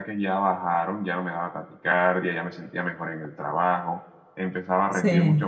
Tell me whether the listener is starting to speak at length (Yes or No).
No